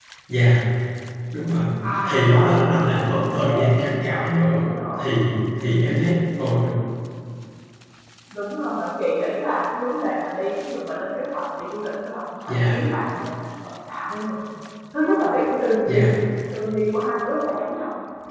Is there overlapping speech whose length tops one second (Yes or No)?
Yes